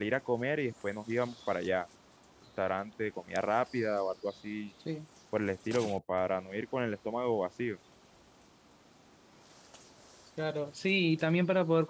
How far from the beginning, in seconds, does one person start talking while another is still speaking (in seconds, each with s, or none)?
none